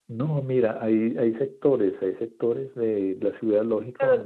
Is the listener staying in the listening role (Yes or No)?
No